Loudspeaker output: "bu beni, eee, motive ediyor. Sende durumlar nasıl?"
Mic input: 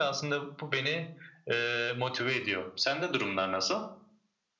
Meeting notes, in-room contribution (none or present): none